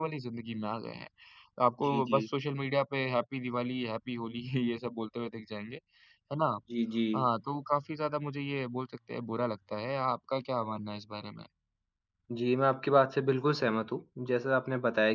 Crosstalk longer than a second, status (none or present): none